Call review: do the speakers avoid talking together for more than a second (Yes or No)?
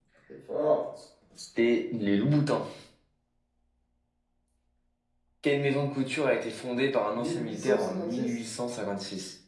No